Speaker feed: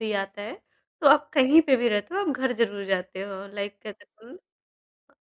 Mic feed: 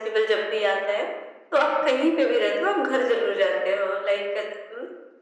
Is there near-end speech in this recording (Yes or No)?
No